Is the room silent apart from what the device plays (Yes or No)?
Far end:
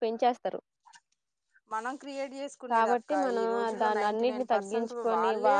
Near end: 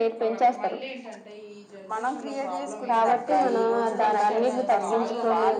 No